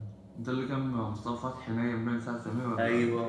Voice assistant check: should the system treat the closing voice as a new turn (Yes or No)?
Yes